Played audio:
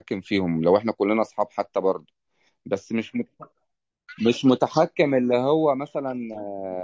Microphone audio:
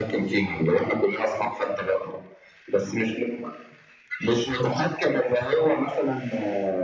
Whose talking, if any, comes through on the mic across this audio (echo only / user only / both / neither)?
echo only